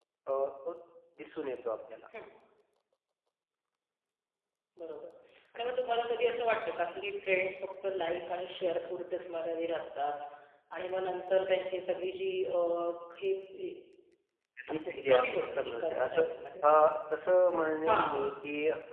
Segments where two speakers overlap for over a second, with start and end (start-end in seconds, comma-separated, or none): 14.7-16.2